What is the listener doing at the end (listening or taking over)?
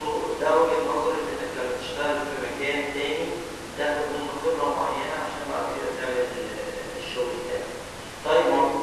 listening